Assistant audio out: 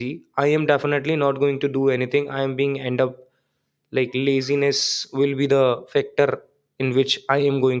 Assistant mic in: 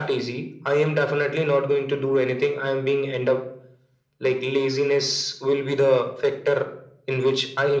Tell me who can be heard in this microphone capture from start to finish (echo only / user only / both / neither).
echo only